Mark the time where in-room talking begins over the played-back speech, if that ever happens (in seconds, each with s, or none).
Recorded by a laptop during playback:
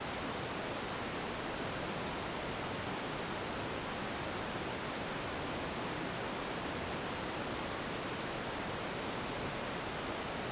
none